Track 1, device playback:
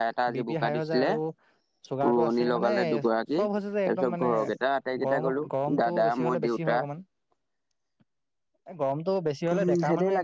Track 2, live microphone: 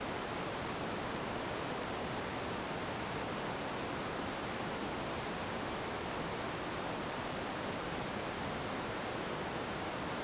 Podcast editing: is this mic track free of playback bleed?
Yes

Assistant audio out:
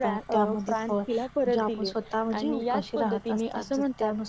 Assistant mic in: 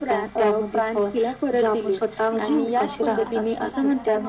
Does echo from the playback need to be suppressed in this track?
Yes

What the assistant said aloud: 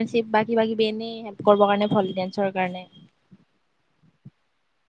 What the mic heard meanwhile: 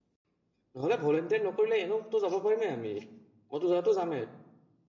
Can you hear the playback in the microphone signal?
No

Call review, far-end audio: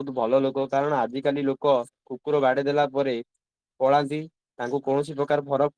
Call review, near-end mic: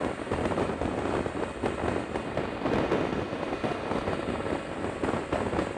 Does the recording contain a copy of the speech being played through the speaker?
No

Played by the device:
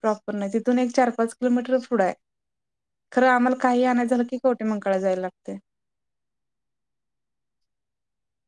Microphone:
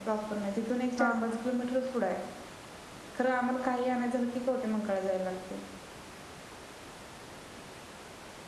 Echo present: Yes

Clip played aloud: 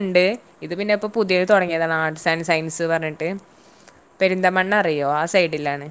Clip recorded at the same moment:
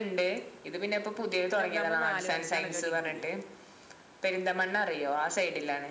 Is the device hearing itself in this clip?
Yes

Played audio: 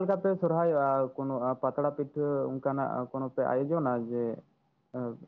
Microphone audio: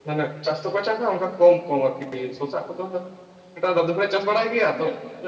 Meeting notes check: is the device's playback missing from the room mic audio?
Yes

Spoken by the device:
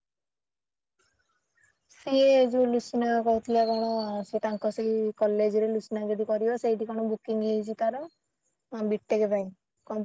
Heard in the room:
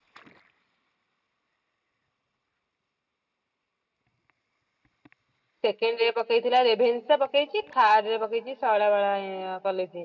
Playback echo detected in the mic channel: No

